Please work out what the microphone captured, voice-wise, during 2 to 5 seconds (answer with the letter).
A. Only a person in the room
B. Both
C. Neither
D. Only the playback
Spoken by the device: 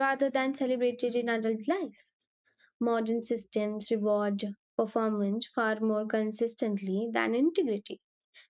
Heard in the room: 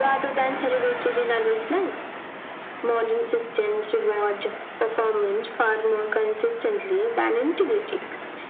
D